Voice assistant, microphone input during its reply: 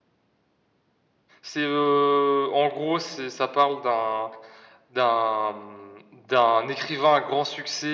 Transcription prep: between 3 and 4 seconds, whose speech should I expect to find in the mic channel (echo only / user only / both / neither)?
user only